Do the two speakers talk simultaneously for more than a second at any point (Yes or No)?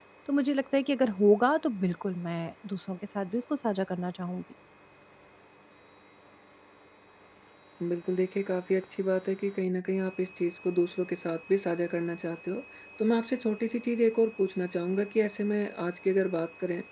No